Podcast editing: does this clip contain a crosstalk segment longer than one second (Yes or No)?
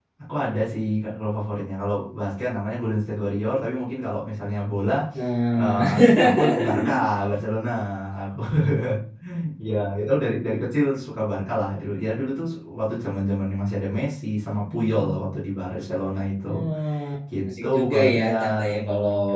Yes